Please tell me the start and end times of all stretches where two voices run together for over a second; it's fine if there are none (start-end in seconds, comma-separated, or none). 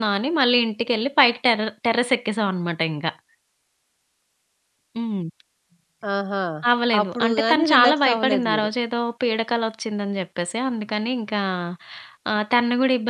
7.0-8.7